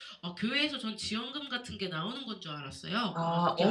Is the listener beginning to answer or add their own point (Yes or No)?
Yes